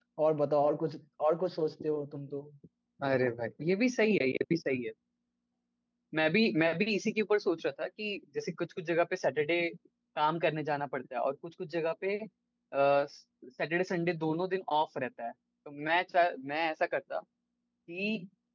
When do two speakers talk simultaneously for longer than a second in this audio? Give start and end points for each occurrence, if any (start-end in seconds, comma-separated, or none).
none